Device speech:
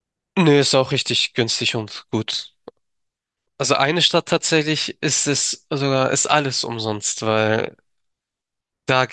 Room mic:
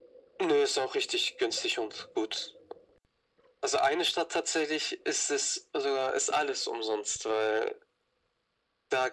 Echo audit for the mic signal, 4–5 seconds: echo only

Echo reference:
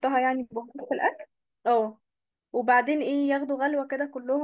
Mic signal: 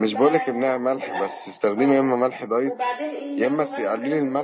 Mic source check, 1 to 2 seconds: both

